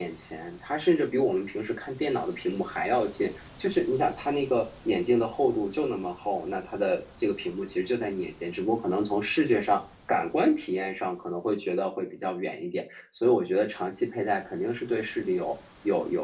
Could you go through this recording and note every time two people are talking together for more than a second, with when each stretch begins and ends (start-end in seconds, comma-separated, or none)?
none